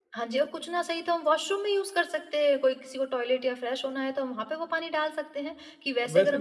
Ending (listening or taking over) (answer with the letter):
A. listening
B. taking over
B